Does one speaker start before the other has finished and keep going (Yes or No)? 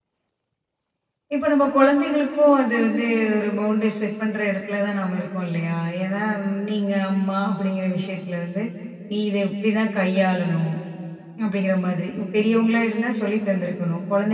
No